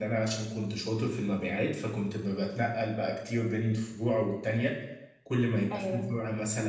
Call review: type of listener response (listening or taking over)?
listening